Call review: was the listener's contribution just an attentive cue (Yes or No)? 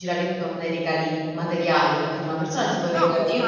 Yes